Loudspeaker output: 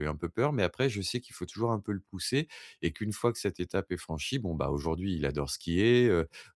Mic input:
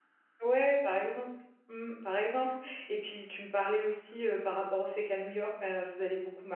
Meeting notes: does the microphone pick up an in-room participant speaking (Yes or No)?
Yes